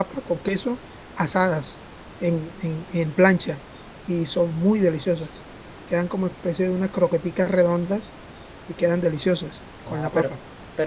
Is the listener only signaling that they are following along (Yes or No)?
No